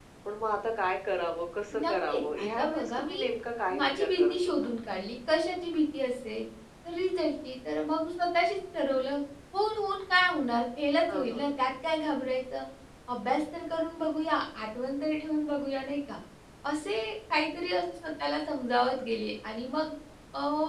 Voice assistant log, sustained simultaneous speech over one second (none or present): present